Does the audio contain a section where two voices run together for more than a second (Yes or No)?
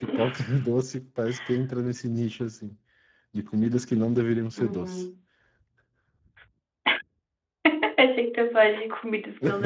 No